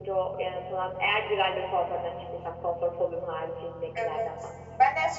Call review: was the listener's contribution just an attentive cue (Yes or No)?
No